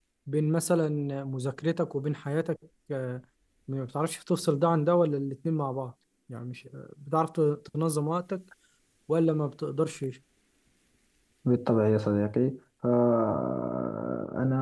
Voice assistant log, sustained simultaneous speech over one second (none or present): none